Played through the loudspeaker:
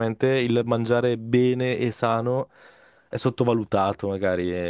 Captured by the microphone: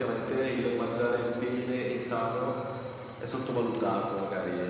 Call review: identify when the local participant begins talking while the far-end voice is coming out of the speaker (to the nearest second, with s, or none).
none